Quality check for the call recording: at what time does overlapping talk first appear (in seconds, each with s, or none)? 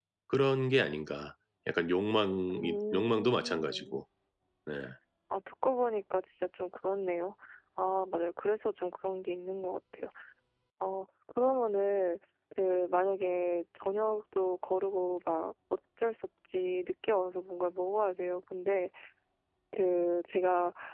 2.5 s